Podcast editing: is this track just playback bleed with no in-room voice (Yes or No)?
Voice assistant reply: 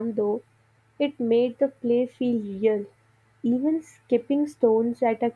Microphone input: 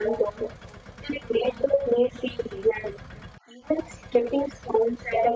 Yes